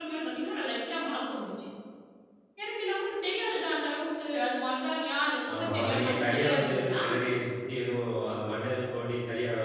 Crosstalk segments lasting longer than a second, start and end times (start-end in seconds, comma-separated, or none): 5.6-7.0